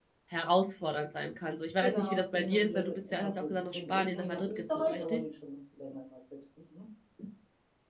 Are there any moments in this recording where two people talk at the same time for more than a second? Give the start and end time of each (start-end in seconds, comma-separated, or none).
1.8-5.2